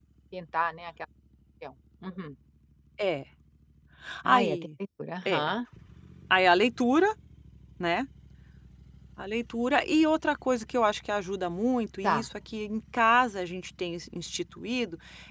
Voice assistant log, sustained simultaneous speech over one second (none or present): none